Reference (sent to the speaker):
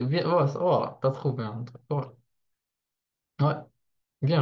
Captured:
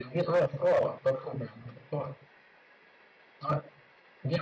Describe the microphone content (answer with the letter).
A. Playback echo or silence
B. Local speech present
A